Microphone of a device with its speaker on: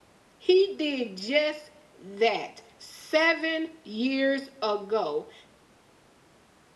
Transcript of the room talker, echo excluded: He did just that seven years ago.

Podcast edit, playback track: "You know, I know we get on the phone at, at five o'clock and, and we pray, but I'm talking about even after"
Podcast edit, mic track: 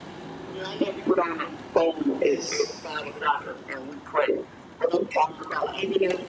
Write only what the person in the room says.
Just

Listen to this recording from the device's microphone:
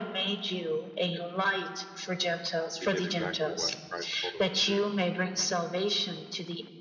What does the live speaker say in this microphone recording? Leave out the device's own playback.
He did exactly what Christ told him to do.

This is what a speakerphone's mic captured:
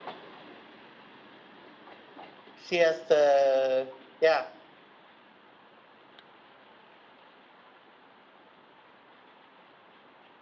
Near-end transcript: she has to. Yeah,

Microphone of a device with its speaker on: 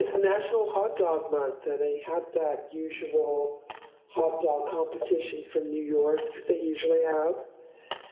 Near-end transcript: none

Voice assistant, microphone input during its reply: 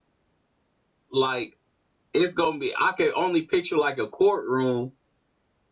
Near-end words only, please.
like it's gonna be. I can only picture like a courtroom

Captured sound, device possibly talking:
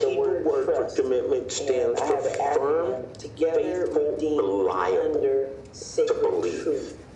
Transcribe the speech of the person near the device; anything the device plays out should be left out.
none

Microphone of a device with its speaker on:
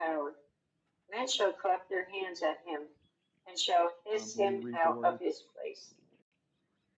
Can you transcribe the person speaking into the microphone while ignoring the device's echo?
um, when you read the word,

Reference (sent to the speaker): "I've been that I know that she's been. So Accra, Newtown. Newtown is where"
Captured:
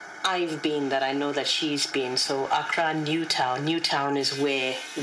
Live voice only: none

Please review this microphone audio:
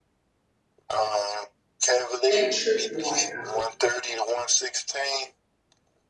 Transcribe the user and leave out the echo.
They tripping right now.

